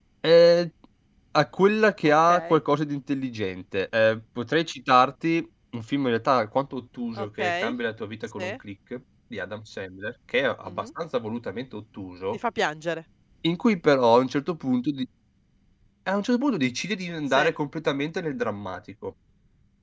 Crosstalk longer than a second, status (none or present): none